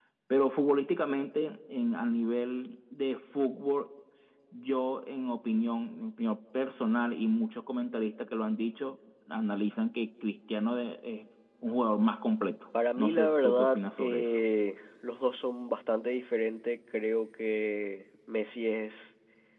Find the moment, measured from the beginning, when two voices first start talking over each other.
13.0 s

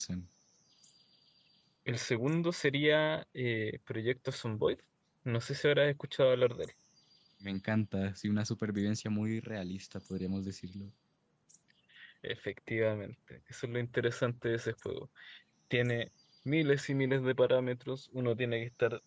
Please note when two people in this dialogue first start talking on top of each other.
none

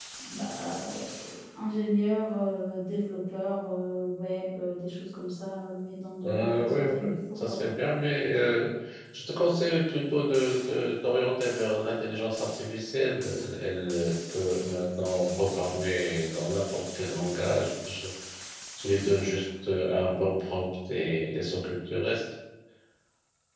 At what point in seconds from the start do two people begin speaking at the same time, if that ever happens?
6.2 s

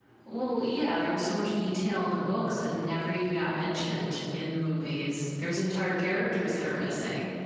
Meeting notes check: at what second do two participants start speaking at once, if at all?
none

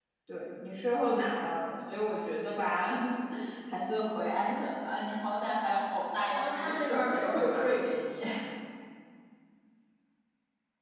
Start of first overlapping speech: 6.3 s

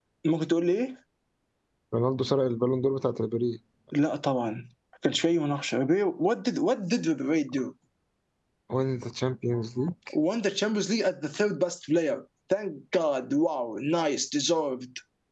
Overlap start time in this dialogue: none

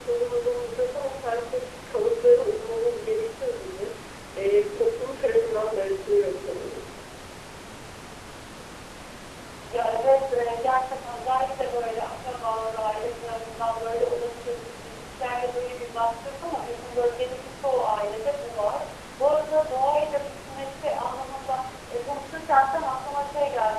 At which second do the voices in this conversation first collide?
none

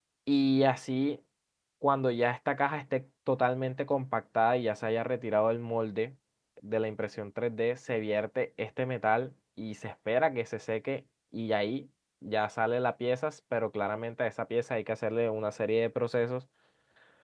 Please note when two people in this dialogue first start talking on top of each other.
none

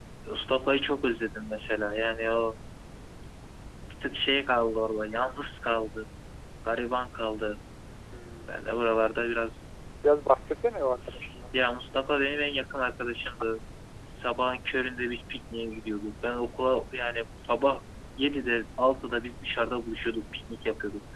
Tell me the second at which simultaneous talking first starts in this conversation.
none

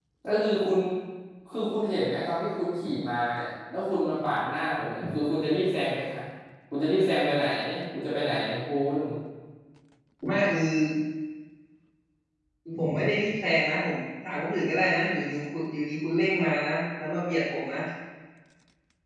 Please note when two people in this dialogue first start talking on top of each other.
none

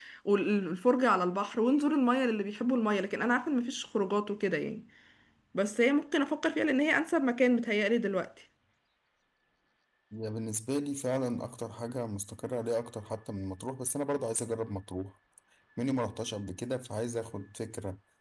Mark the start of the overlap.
none

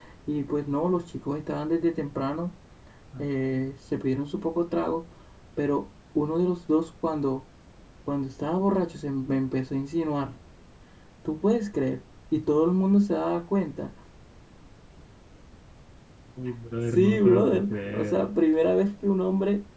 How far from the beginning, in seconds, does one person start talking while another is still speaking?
16.9 s

